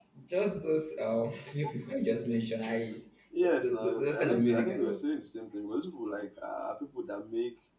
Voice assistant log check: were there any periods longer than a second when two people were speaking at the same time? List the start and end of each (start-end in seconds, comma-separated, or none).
3.4-5.0